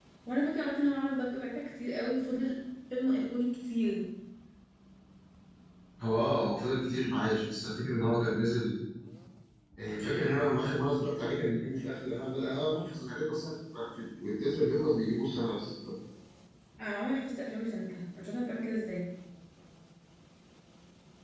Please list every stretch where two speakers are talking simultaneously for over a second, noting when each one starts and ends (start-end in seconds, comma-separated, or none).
none